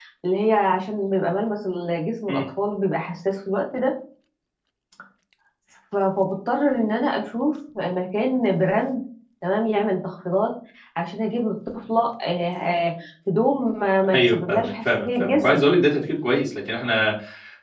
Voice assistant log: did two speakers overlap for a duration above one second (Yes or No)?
Yes